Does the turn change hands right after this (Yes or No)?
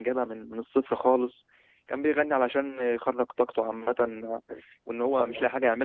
No